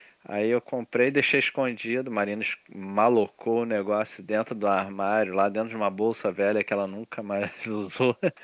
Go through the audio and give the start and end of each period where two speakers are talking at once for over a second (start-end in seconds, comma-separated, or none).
none